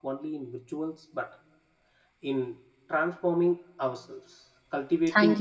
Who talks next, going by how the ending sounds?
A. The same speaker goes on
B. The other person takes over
A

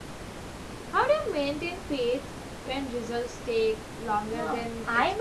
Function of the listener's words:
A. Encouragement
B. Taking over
B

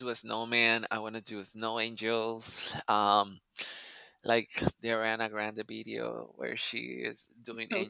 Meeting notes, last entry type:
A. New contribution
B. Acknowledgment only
B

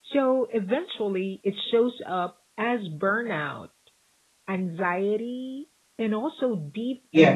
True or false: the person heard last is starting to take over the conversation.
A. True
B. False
A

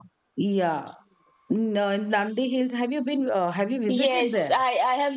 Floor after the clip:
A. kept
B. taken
B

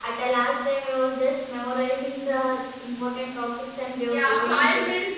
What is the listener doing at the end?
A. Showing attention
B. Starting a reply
B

